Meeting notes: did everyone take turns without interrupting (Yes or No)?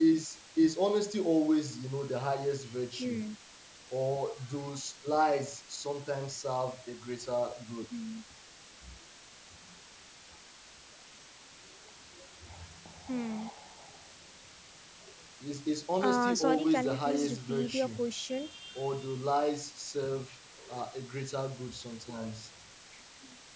No